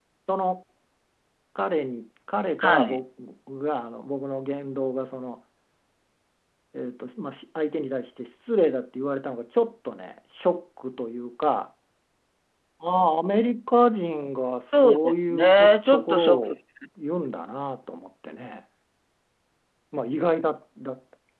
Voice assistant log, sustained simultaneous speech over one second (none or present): present